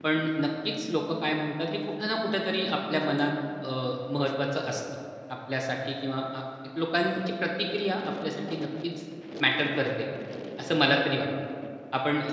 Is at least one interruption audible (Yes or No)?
No